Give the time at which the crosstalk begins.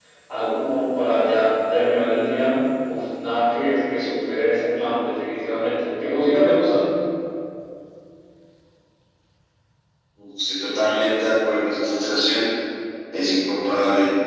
none

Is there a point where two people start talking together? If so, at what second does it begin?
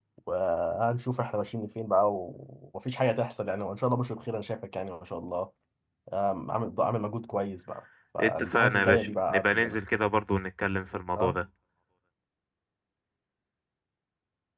8.2 s

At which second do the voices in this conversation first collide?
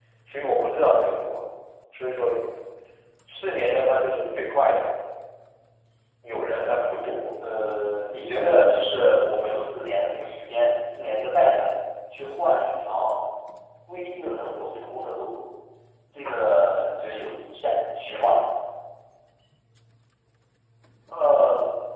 none

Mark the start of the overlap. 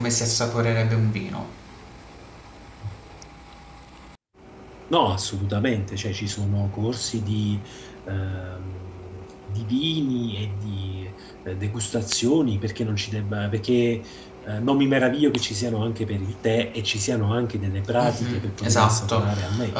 18.0 s

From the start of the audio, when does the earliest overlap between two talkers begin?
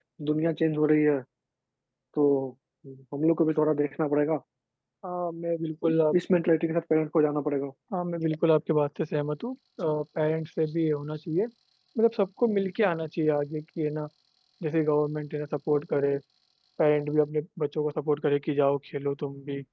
none

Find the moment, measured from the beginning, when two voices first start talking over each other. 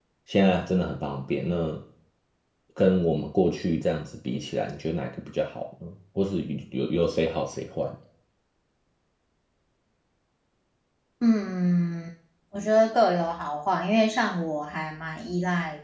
none

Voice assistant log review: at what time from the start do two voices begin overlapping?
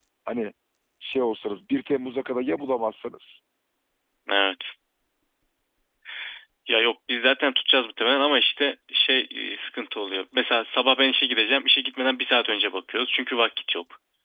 none

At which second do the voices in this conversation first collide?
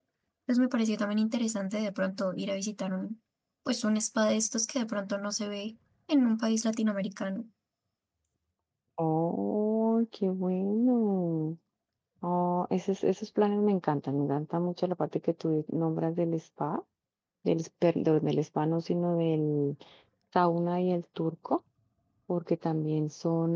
none

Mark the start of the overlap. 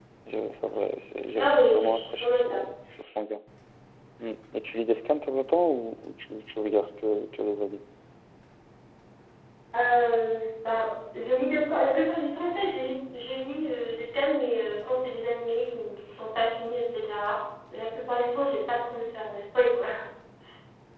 1.4 s

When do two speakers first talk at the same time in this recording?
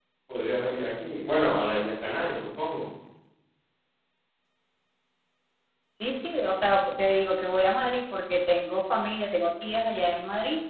none

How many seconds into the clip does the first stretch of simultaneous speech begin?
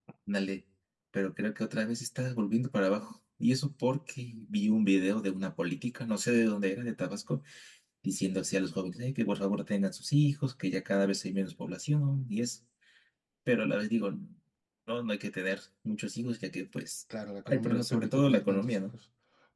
17.4 s

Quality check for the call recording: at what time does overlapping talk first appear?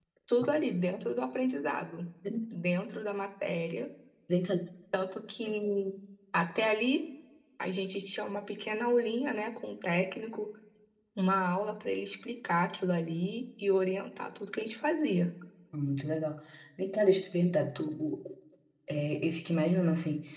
none

